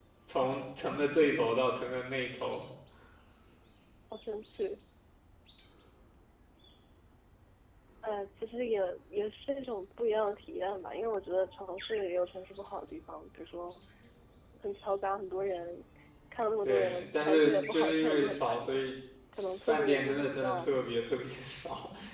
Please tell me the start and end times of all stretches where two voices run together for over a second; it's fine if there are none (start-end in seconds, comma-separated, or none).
16.6-18.7, 19.4-20.7